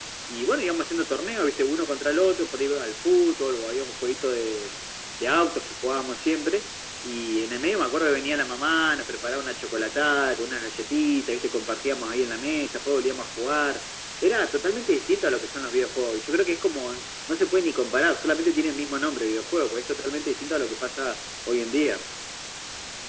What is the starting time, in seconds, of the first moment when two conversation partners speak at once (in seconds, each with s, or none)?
none